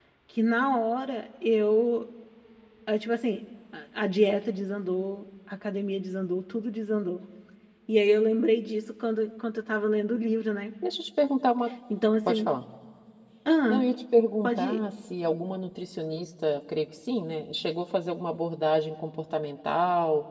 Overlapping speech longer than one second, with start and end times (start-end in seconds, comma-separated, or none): none